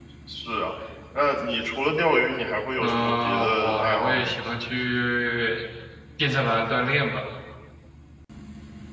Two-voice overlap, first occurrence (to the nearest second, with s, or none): 3 s